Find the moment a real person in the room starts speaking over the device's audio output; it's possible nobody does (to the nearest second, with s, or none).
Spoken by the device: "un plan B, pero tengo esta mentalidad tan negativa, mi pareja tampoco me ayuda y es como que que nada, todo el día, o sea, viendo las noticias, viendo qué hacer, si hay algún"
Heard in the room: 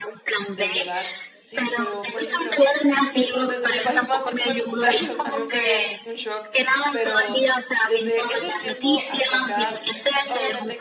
0 s